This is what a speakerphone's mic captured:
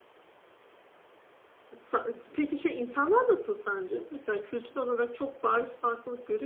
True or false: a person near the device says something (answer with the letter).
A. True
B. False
A